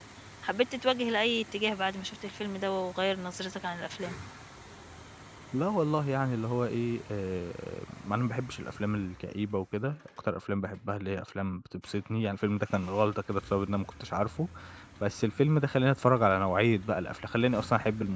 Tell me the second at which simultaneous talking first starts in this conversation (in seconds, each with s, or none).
none